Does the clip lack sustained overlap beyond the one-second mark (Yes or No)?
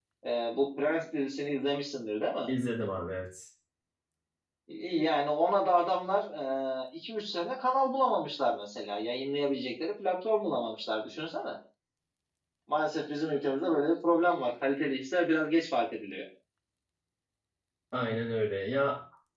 Yes